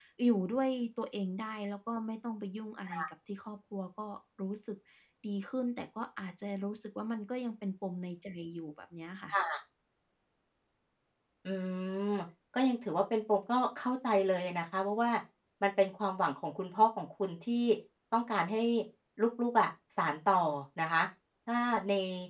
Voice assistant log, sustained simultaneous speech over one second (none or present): none